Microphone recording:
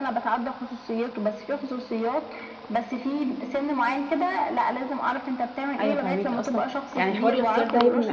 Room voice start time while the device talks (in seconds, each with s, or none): 5.8 s